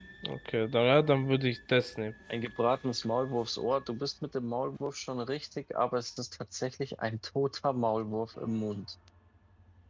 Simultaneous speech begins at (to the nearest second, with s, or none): none